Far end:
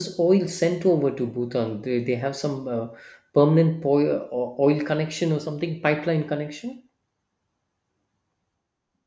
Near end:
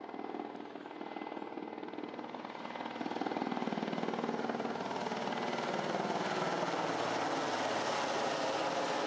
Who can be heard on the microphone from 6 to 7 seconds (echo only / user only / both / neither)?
neither